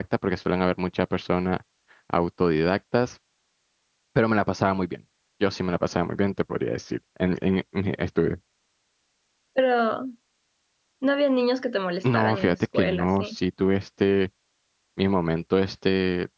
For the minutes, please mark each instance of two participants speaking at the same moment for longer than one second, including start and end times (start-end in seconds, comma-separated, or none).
12.0-13.4